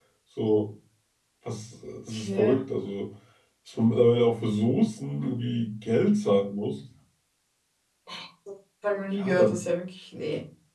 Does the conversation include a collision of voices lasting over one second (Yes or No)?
No